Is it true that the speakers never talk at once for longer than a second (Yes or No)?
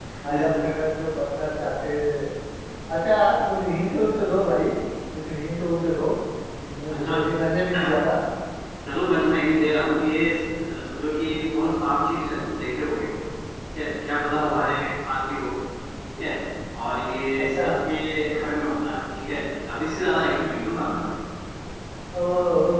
Yes